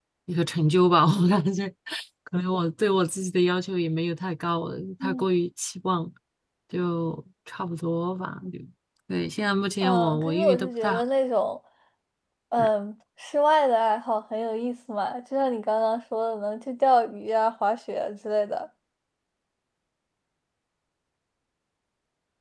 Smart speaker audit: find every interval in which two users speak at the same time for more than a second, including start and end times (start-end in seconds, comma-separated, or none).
9.8-11.0